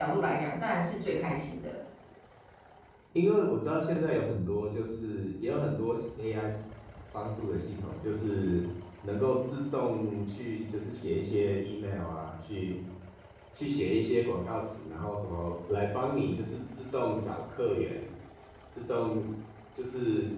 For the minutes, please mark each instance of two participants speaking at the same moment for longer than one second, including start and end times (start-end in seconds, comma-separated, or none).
none